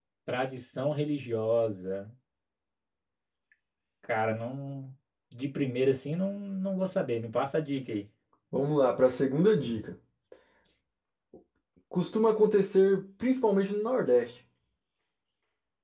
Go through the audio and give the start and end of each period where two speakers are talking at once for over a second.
none

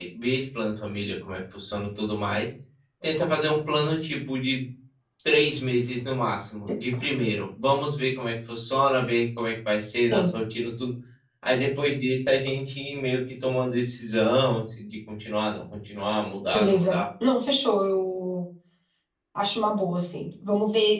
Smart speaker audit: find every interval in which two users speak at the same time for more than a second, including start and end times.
none

